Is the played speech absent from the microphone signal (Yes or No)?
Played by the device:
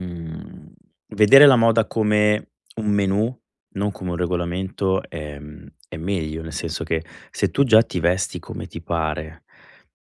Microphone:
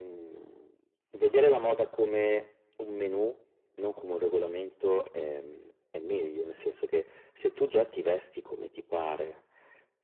No